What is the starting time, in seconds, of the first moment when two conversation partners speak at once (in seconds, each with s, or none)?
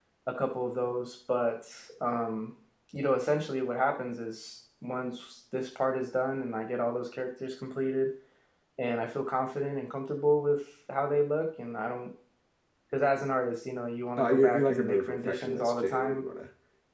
14.2 s